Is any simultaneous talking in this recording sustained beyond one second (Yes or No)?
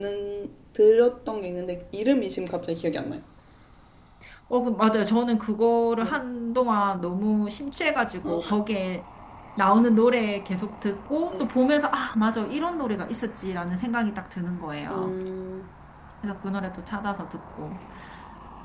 No